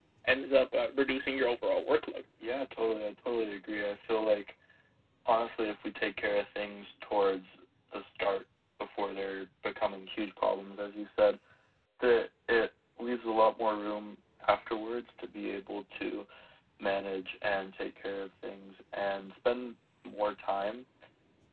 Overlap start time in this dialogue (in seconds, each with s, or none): none